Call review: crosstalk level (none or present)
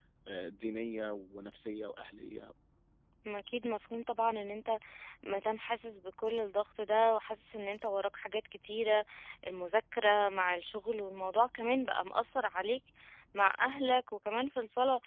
none